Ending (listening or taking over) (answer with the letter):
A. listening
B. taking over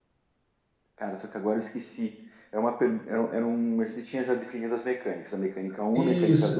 B